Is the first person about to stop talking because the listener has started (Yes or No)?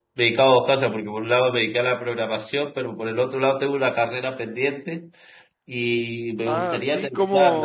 Yes